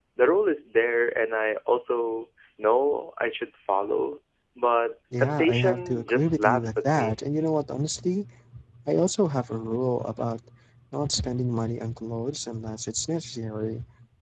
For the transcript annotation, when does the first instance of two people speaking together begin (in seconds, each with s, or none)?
5.1 s